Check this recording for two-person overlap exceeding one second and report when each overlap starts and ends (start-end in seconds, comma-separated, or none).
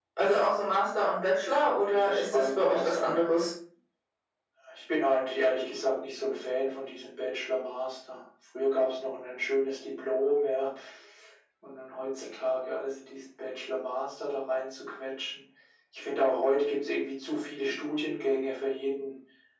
1.9-3.3